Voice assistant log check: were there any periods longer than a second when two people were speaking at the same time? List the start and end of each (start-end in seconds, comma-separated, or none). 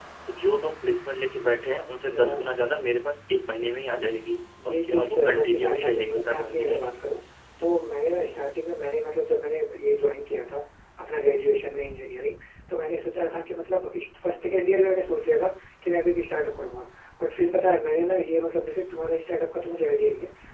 4.6-6.6